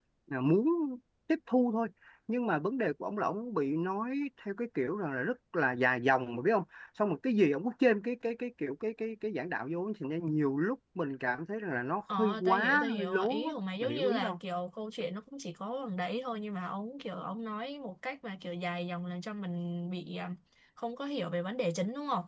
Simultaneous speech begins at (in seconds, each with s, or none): 12.1 s